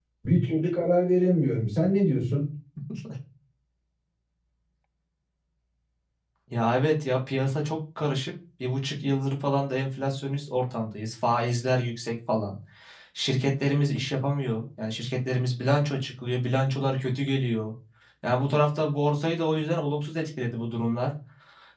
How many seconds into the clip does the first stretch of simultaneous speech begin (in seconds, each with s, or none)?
none